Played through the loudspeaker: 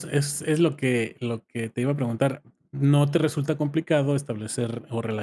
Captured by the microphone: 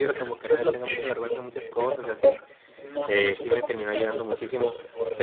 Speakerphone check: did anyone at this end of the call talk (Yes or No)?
Yes